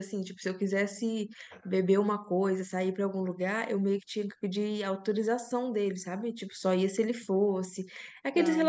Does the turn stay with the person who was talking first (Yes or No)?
Yes